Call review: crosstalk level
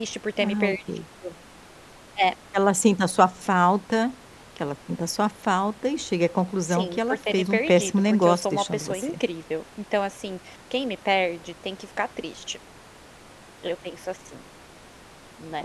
present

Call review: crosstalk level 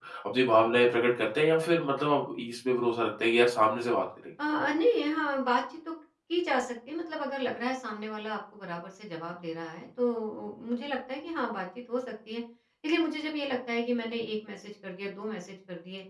none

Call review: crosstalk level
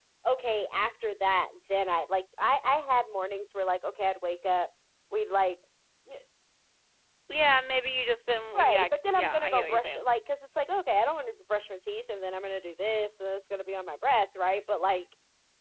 present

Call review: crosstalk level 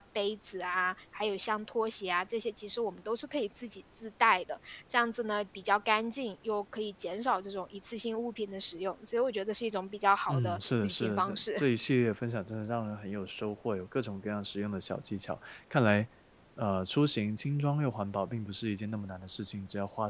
present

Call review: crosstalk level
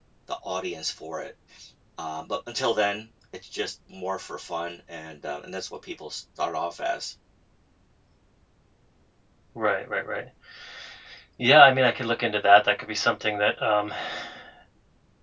none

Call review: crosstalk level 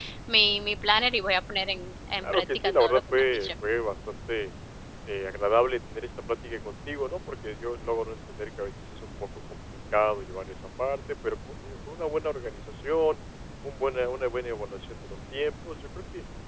present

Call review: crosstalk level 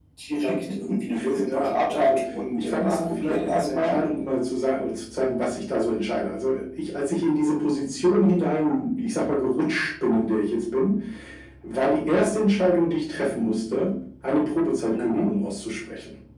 present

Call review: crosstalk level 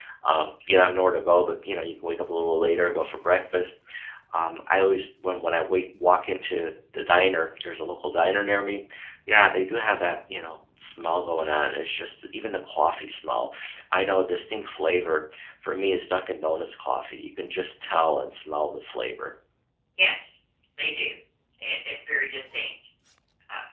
none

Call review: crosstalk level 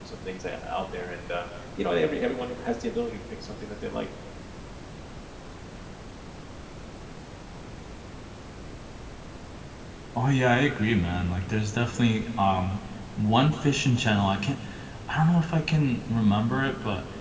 none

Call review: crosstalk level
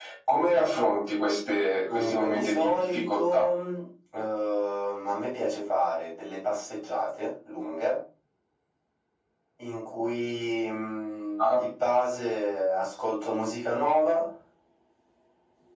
present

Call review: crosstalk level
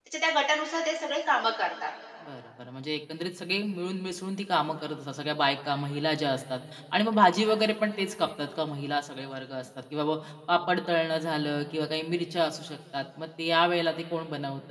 none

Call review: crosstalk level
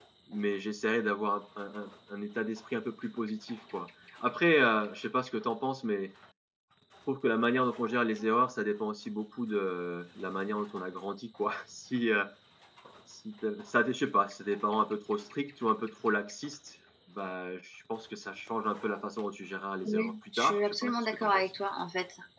present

